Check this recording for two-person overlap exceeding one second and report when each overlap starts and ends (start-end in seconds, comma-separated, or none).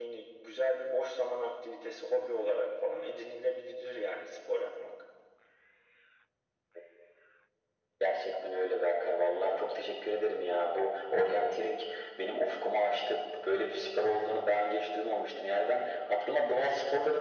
none